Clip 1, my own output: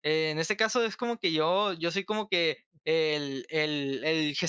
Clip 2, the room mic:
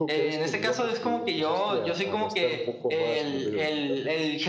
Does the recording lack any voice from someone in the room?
No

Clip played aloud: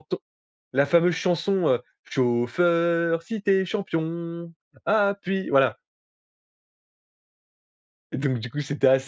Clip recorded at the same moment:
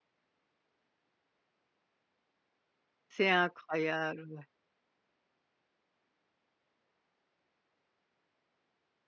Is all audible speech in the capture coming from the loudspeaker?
No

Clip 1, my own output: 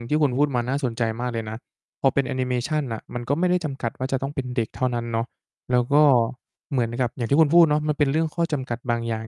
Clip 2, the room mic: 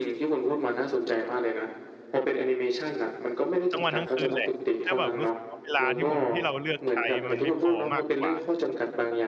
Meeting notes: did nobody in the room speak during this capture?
No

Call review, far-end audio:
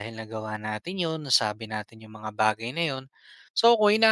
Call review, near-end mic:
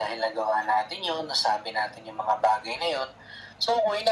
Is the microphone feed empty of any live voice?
Yes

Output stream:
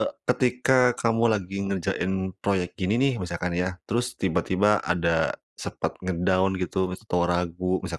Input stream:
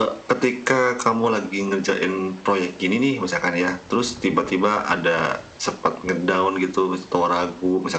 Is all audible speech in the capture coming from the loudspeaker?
Yes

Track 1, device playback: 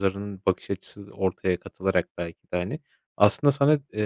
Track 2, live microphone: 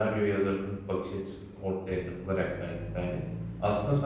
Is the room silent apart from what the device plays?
Yes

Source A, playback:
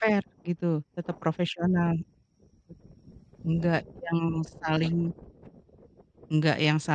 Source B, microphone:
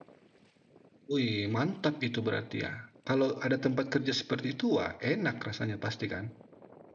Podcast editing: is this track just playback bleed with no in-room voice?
No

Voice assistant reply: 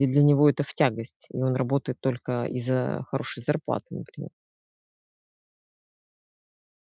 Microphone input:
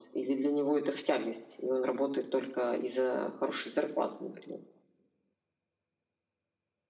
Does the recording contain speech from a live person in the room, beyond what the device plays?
No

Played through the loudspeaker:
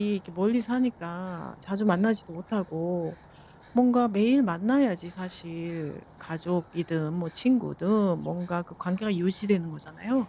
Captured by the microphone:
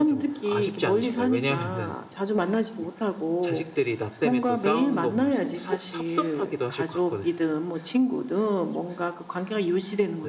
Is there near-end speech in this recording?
Yes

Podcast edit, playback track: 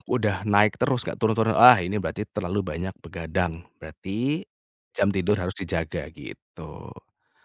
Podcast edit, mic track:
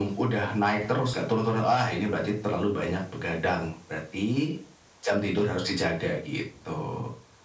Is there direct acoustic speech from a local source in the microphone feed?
No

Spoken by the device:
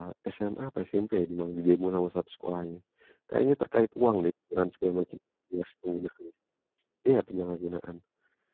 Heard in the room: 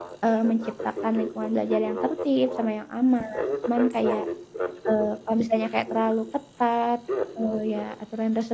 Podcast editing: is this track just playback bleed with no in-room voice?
No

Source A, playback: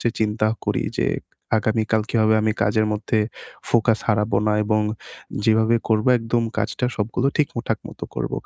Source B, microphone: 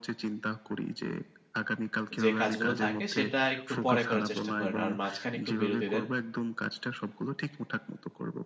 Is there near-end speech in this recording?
Yes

